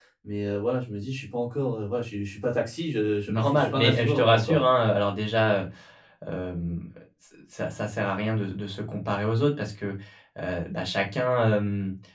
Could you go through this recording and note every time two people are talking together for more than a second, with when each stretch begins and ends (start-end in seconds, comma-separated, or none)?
3.3-4.6